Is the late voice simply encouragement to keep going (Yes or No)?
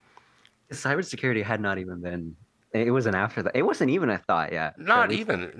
No